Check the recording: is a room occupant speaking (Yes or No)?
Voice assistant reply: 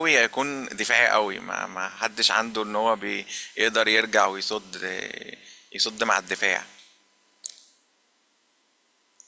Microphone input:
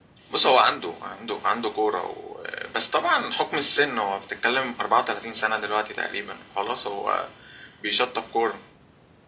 Yes